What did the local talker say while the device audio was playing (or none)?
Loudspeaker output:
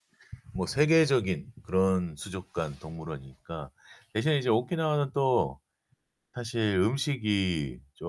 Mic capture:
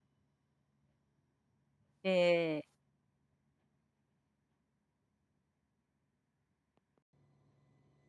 네.